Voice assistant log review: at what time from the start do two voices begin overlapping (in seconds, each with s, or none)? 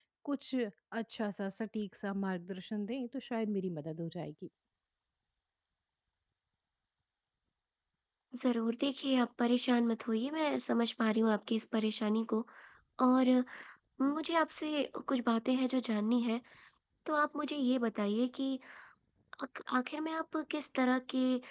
none